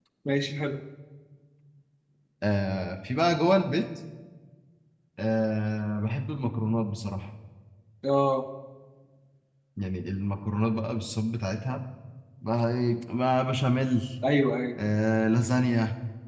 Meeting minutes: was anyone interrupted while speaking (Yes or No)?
No